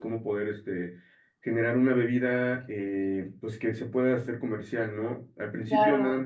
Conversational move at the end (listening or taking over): listening